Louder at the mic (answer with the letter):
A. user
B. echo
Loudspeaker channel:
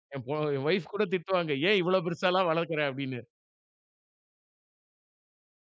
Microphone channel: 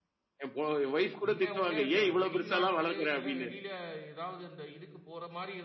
B